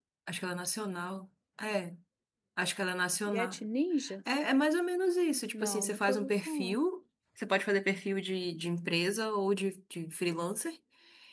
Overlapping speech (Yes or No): Yes